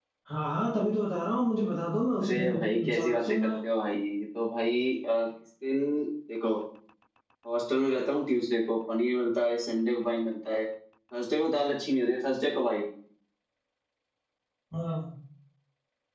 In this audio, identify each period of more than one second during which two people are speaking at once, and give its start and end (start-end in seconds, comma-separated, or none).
2.2-3.5